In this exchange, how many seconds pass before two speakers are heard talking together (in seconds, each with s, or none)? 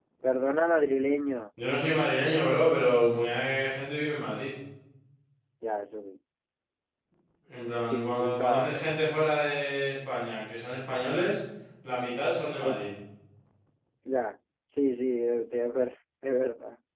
7.8 s